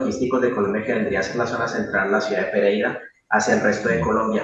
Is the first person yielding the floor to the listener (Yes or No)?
No